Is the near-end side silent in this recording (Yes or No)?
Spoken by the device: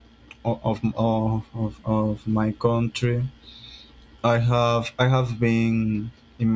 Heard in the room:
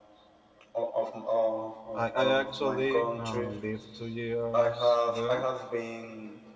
No